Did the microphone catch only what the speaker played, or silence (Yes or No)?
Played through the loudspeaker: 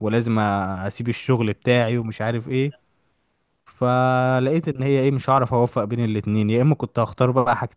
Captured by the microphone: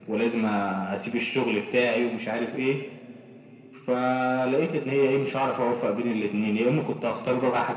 Yes